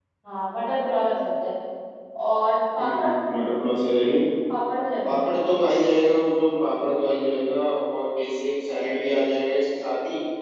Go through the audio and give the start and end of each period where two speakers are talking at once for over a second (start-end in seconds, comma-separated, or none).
none